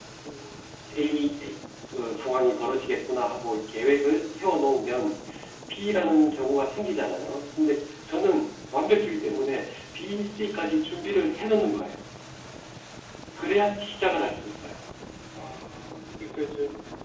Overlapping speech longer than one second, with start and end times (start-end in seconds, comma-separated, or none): none